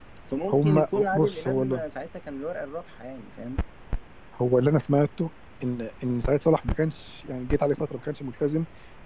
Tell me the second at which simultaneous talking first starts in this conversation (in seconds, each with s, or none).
0.5 s